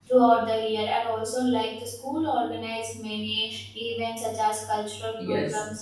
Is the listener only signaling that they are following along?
No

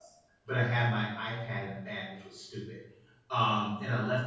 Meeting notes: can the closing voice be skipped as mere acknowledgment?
Yes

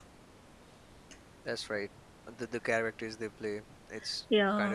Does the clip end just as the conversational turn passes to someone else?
Yes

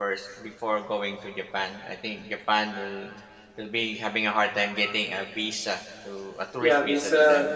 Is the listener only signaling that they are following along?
No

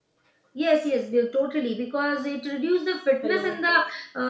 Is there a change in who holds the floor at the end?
No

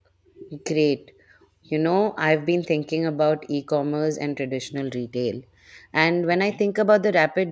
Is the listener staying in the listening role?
Yes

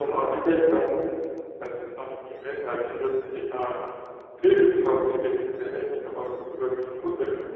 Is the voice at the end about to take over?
No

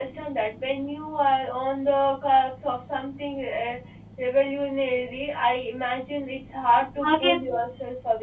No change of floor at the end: Yes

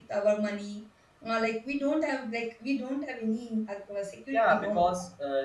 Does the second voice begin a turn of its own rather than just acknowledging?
Yes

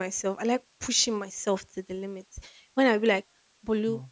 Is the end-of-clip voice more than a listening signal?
No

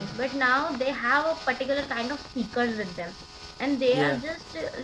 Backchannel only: Yes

